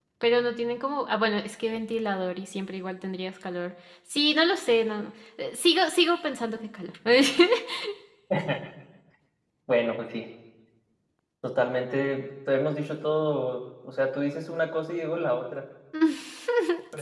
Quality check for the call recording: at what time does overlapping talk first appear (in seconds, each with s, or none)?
none